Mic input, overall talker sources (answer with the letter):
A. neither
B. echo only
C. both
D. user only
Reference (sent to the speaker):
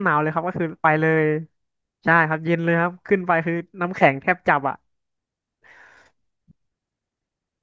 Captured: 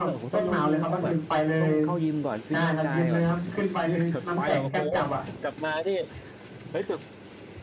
C